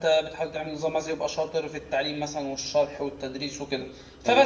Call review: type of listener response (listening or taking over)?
listening